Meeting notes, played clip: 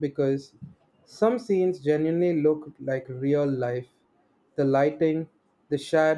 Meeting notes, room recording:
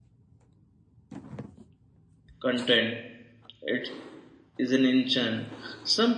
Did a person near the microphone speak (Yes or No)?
Yes